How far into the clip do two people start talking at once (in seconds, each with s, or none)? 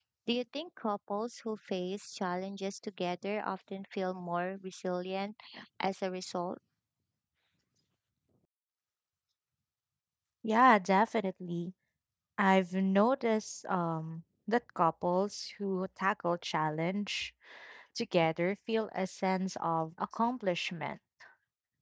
none